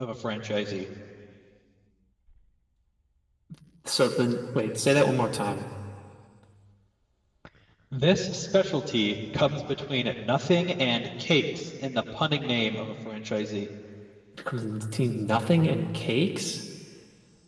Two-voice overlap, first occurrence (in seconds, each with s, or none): none